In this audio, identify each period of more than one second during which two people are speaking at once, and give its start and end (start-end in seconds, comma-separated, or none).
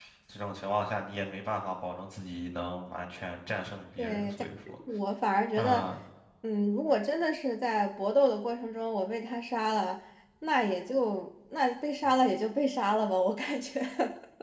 none